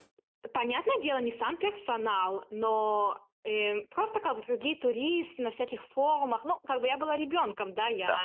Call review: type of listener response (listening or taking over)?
taking over